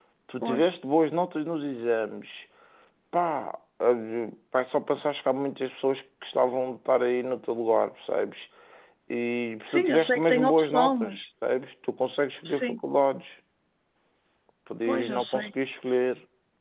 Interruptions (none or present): present